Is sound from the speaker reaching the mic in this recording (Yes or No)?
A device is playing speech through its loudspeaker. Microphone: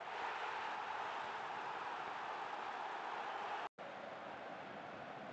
No